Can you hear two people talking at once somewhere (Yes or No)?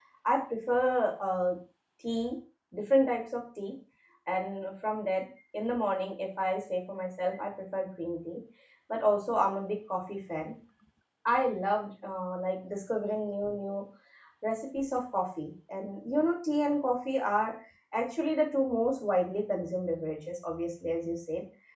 No